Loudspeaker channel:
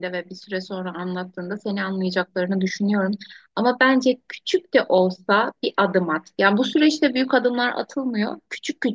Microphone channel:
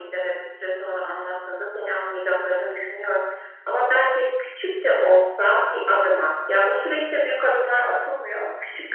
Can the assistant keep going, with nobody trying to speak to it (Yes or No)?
Yes